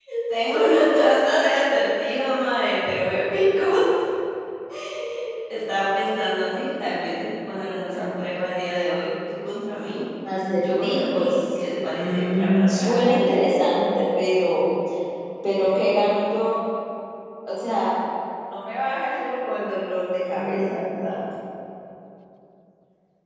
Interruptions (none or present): present